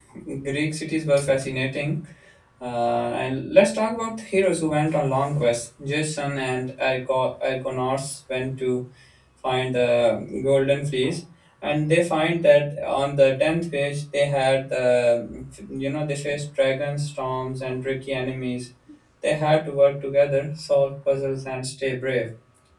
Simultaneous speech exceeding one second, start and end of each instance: none

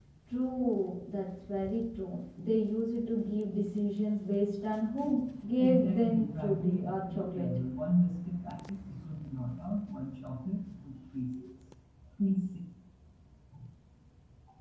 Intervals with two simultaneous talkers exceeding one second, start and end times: 5.6-7.5

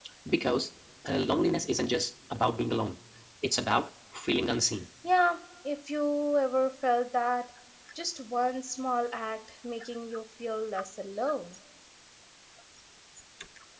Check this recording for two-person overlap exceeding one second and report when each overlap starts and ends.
none

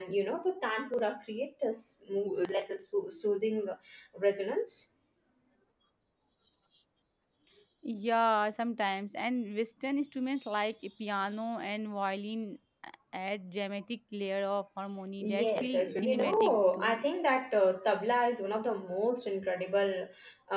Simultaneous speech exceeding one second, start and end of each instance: 15.2-17.0

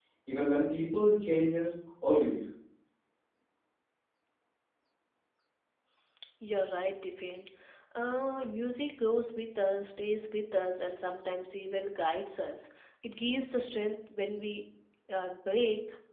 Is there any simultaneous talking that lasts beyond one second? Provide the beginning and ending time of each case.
none

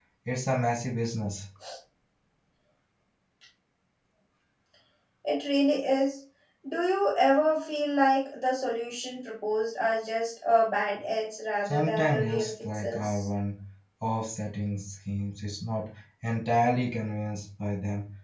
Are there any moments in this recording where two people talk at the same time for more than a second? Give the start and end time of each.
11.7-13.2

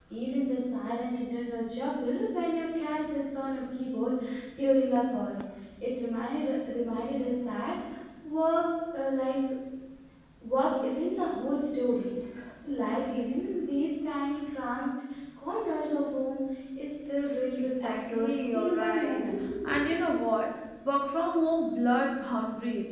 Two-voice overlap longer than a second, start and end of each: 17.6-19.3

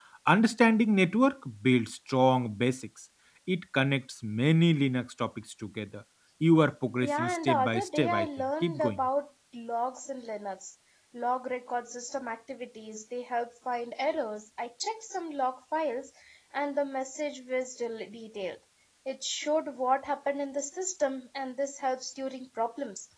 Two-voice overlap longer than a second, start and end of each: 7.0-9.1

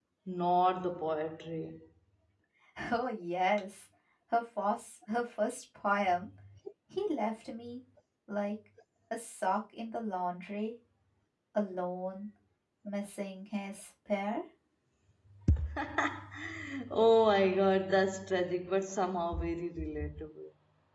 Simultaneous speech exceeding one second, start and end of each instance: none

